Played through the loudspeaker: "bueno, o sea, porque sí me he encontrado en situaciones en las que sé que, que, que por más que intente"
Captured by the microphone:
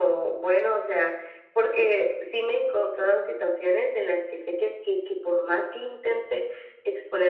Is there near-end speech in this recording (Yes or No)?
No